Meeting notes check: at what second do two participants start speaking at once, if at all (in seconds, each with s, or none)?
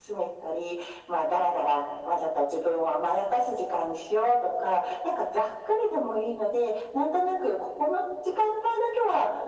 none